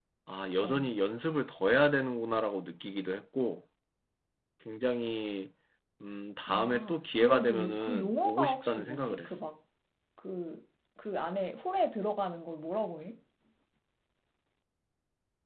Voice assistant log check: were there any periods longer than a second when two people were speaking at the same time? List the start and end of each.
6.5-9.3

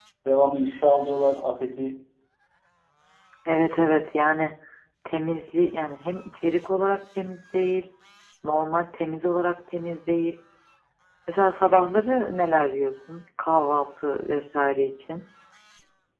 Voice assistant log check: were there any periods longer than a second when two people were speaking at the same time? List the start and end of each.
none

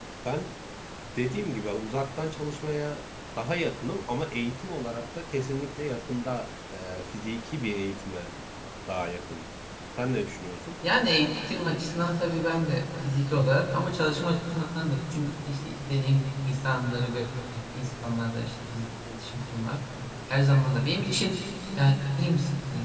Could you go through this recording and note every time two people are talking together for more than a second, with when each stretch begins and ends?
none

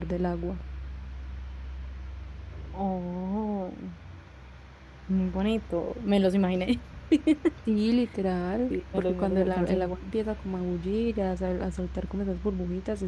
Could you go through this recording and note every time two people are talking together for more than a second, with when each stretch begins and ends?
8.7-10.1

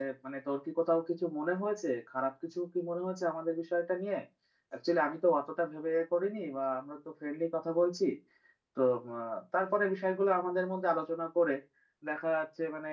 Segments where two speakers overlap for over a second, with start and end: none

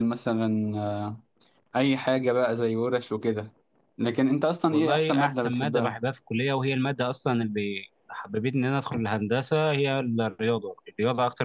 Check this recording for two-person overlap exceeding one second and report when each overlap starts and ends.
4.7-6.0

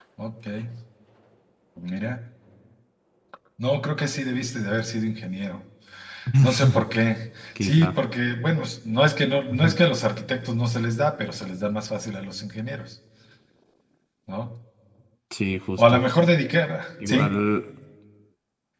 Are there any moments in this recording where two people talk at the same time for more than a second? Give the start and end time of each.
none

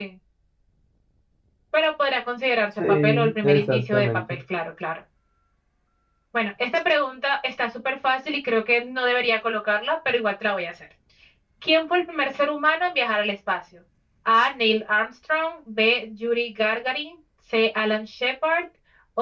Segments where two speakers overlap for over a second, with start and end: 2.9-4.4

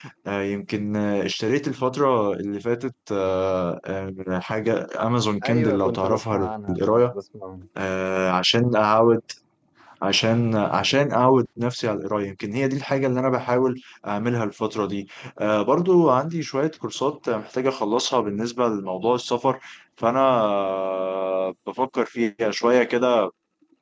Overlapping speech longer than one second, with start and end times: 5.4-7.1

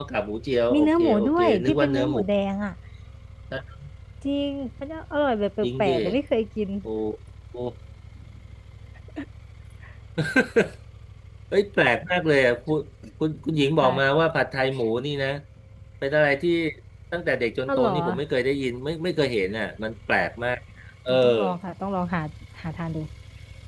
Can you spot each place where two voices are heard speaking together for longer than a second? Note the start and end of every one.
0.7-2.2

